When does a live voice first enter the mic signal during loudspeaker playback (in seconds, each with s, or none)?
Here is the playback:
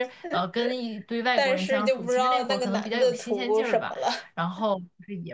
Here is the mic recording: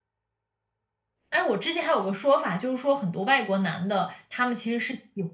1.3 s